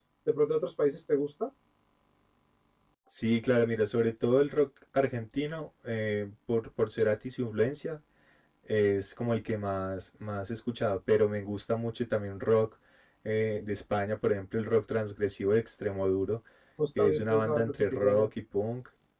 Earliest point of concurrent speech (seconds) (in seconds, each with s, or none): 17.0 s